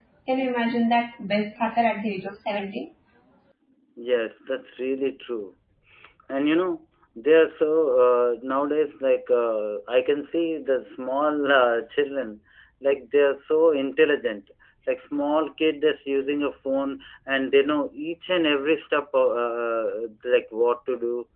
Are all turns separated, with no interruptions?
Yes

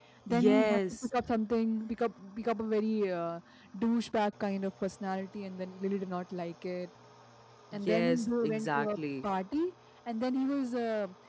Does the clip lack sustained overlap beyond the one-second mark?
No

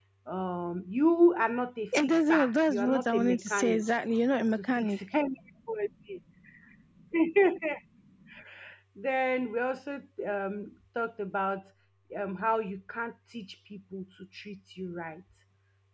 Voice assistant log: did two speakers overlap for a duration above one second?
Yes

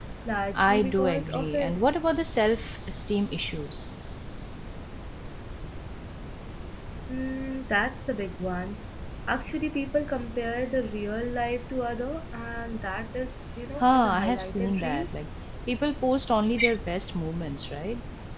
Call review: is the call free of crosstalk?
No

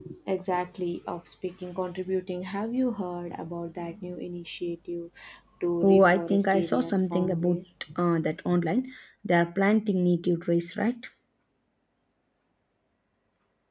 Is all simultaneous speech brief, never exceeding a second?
No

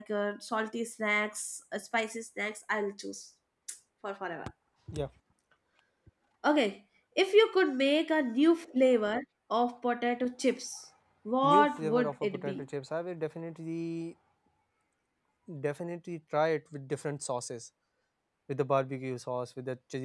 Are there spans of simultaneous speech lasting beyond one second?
Yes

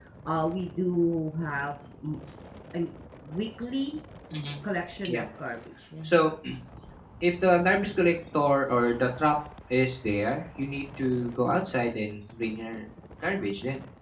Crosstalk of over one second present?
No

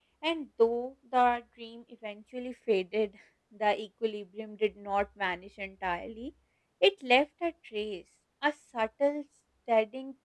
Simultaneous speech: No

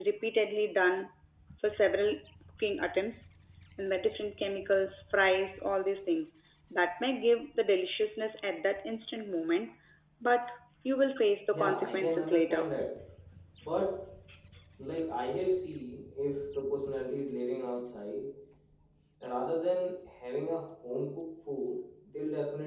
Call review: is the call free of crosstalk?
No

